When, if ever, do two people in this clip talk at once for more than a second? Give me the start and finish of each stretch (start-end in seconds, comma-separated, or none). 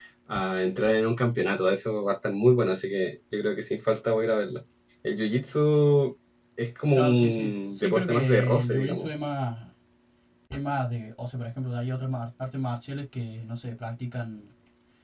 6.9-9.1